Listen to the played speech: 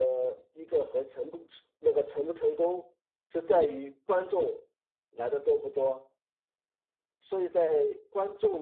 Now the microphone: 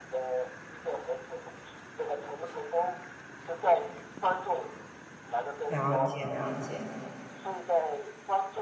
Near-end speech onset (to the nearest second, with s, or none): 6 s